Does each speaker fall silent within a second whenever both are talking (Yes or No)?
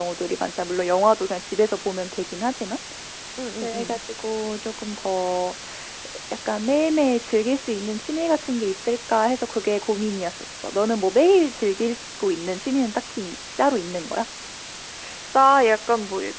Yes